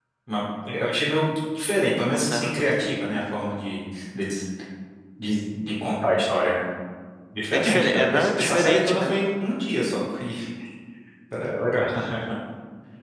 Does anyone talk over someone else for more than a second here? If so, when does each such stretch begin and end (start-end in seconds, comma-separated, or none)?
7.5-9.1